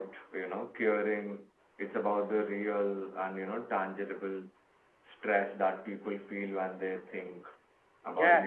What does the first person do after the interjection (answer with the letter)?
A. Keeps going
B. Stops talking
B